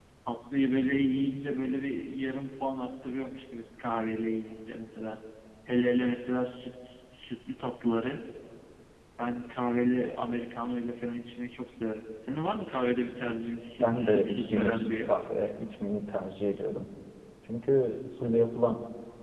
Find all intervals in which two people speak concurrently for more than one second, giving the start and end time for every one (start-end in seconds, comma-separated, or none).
13.8-15.1